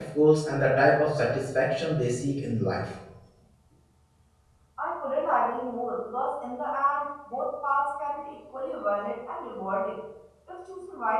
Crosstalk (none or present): none